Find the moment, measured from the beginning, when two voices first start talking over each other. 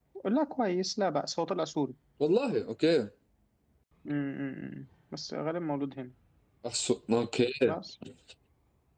none

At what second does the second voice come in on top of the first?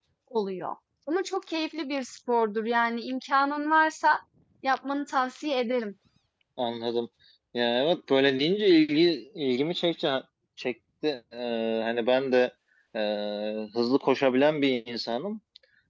none

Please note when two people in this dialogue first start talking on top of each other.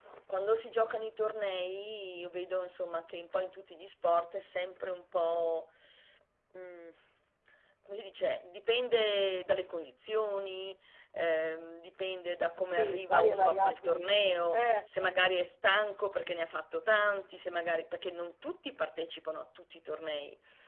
12.8 s

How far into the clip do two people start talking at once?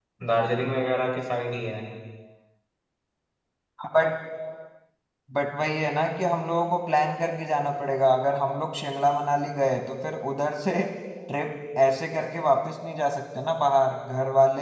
none

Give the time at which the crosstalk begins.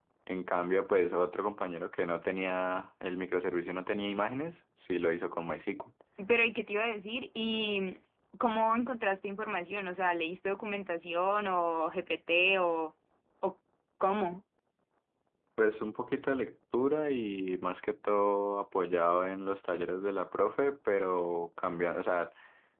none

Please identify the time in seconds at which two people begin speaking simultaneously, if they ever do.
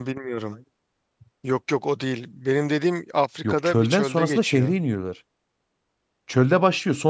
3.4 s

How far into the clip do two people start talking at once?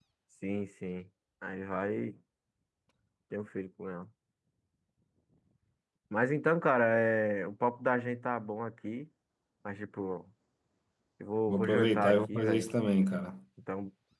11.5 s

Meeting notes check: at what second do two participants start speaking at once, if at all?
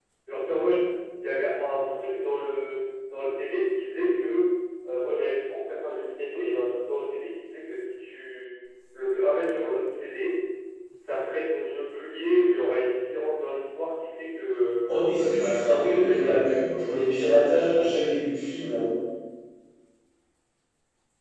15.2 s

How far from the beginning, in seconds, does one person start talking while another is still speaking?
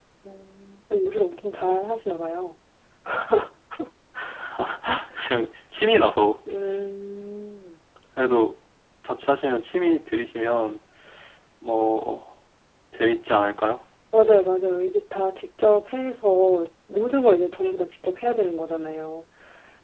none

